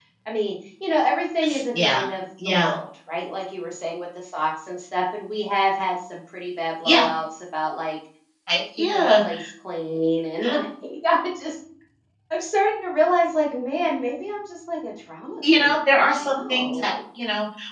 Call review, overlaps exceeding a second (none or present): present